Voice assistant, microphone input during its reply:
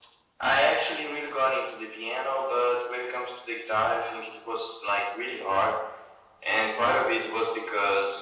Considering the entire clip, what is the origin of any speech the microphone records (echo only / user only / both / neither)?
echo only